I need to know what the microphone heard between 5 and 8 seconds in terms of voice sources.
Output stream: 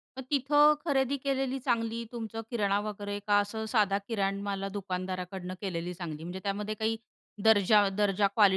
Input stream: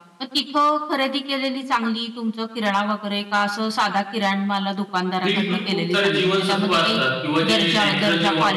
both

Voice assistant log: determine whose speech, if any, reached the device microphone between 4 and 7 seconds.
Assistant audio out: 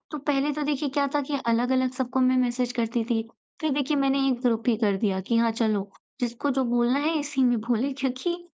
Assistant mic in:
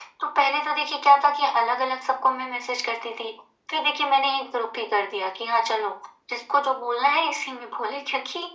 echo only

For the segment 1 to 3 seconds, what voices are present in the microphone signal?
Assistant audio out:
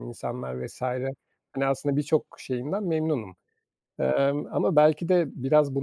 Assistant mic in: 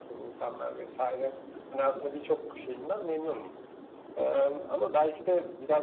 echo only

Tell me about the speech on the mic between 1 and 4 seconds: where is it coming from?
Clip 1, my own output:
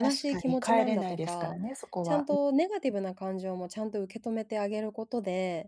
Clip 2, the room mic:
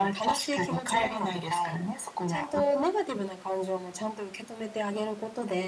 echo only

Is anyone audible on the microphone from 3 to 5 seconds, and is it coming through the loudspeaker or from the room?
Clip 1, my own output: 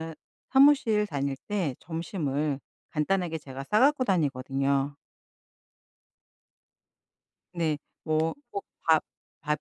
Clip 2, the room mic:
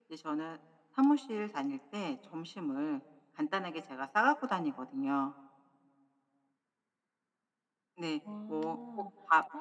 echo only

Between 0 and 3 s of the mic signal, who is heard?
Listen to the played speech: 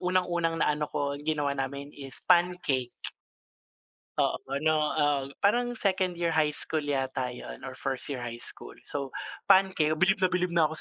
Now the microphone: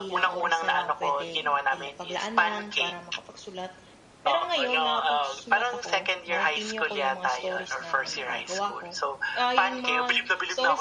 both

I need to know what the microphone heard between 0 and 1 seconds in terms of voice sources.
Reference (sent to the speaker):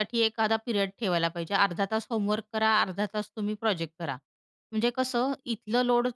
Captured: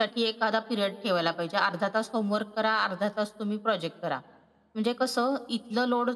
echo only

